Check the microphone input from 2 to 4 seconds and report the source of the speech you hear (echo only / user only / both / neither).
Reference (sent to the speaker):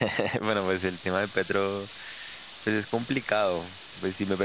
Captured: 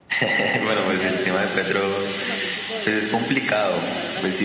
both